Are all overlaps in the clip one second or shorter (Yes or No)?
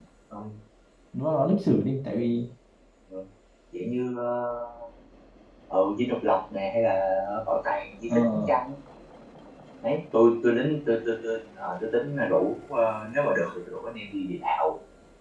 Yes